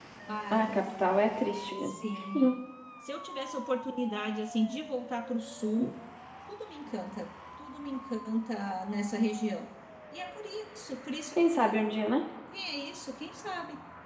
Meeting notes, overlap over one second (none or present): none